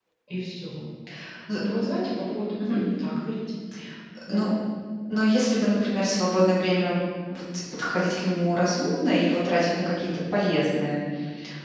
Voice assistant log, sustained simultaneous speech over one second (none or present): none